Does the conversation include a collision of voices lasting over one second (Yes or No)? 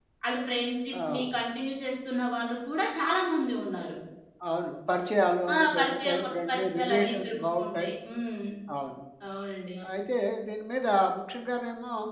Yes